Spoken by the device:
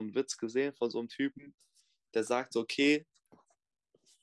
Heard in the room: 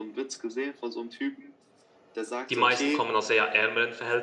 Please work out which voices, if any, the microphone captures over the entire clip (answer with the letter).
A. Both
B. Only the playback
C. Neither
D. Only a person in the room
A